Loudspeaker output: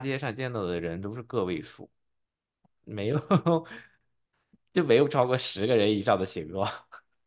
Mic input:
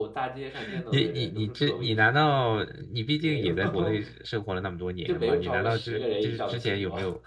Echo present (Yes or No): Yes